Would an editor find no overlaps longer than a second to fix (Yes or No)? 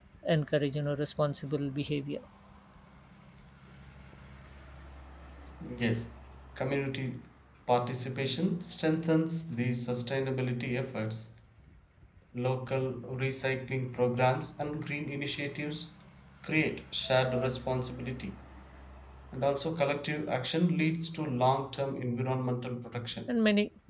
Yes